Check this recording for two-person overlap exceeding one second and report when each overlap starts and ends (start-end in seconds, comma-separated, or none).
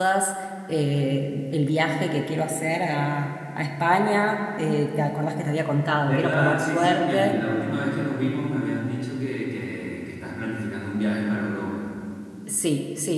6.0-7.4